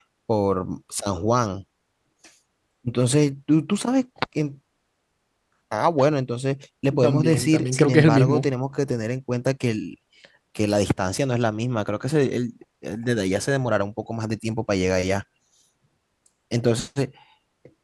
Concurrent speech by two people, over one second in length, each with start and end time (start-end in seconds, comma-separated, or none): 6.9-8.5